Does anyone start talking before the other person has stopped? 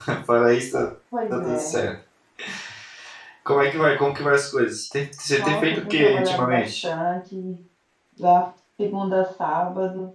Yes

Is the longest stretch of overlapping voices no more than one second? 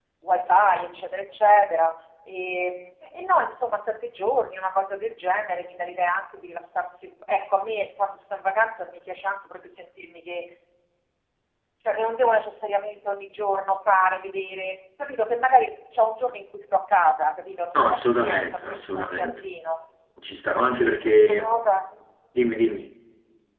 No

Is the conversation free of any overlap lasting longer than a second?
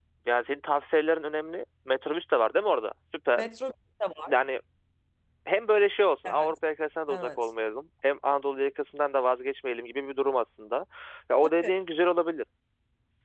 Yes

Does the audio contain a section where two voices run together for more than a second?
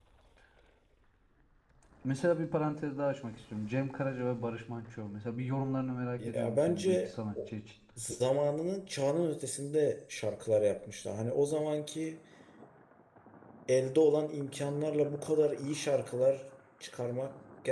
Yes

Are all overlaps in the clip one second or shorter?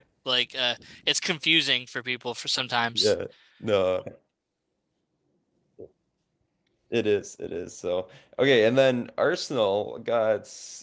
Yes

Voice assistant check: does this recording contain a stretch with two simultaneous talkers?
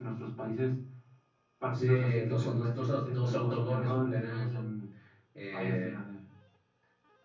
Yes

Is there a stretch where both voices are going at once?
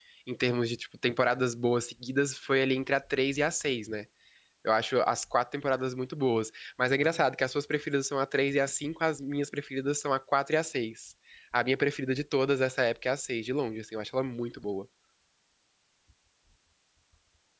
No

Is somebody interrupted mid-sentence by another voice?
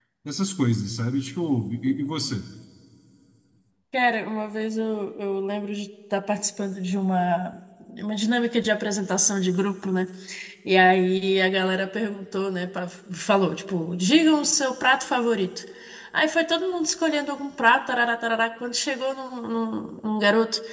No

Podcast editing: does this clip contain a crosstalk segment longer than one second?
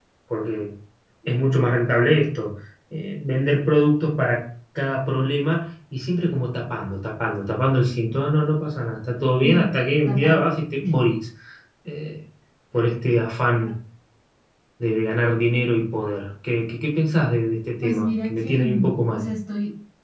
Yes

